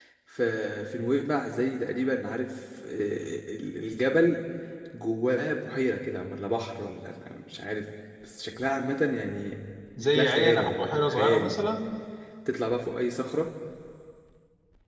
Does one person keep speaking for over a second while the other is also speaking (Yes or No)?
Yes